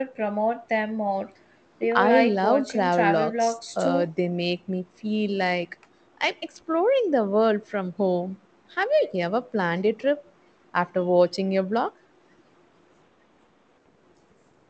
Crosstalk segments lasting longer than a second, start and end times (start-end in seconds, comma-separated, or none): 1.9-4.1